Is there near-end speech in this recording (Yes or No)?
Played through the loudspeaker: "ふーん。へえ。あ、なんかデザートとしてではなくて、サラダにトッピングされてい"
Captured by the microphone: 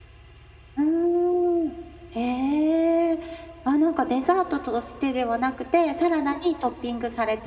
No